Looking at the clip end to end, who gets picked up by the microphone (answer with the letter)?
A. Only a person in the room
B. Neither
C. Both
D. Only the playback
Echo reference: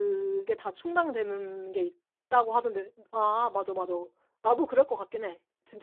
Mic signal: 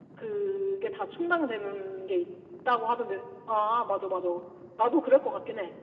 D